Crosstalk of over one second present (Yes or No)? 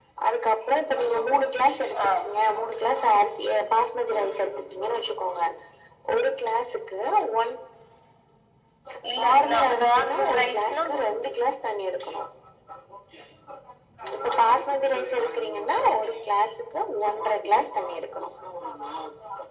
Yes